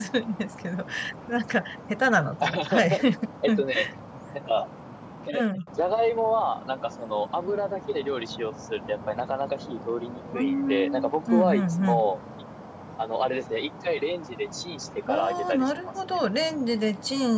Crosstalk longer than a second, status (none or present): present